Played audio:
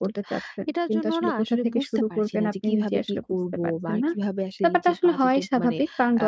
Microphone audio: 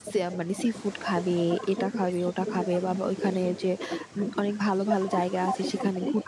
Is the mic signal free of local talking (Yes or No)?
No